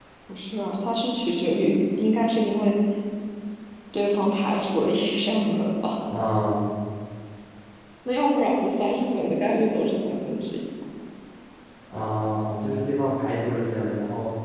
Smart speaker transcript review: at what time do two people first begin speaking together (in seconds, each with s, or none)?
none